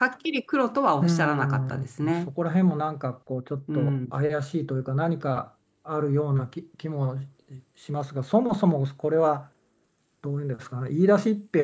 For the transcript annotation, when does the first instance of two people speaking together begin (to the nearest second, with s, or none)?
1 s